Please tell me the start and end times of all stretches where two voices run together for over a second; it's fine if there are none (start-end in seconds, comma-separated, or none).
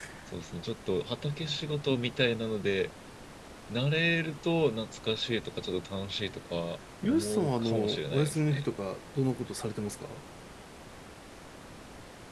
7.0-8.6